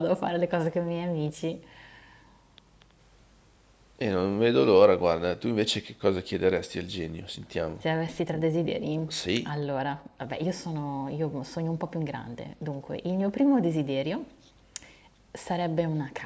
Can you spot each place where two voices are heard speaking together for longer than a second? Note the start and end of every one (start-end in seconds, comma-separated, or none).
none